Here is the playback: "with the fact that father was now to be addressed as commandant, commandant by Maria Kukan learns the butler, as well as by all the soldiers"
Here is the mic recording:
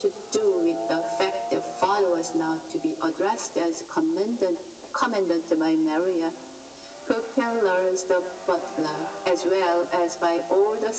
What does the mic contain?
echo only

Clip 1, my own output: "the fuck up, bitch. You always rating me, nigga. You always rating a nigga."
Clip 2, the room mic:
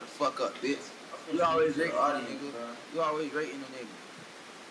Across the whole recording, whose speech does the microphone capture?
both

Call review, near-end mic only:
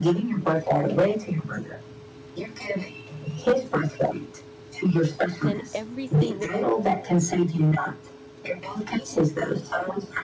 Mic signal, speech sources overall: both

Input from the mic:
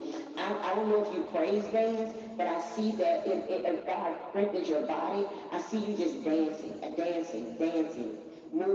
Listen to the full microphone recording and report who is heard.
echo only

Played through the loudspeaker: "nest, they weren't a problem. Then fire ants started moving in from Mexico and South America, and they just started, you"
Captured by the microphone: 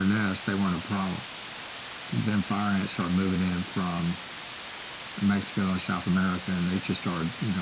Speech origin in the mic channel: echo only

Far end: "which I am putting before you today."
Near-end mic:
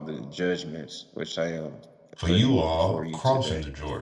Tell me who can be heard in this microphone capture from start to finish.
both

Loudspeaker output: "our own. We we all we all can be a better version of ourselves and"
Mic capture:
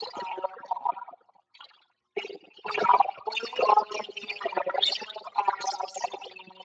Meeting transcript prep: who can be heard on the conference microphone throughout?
echo only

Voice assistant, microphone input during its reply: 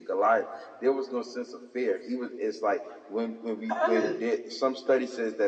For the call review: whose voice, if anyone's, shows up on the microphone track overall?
both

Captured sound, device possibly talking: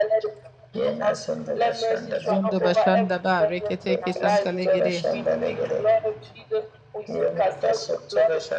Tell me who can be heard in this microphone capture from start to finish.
both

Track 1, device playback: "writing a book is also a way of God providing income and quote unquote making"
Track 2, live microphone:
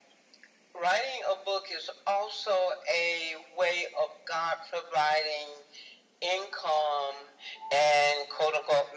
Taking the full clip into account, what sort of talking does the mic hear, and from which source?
echo only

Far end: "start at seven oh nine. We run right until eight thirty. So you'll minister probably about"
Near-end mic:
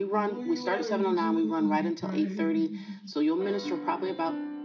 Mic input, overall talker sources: both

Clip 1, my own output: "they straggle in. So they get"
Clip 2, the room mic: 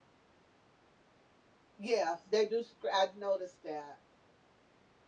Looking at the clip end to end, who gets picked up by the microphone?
user only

